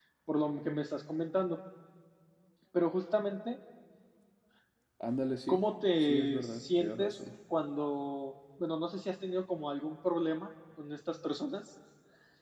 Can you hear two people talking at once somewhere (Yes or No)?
Yes